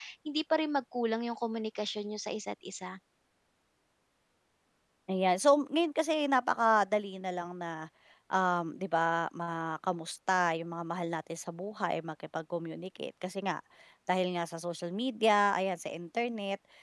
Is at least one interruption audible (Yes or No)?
No